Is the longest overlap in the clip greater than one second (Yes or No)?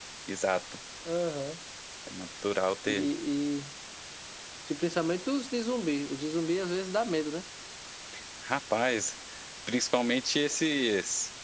No